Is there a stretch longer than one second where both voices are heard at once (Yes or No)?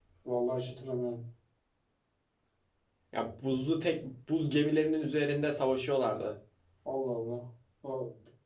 No